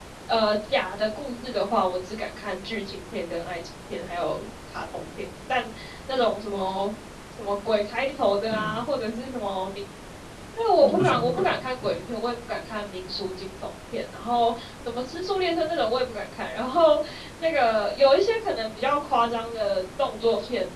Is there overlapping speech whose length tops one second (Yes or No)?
Yes